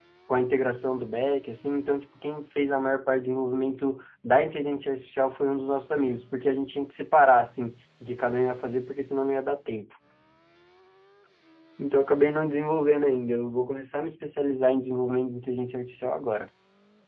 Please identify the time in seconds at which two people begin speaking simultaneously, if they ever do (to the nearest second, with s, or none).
none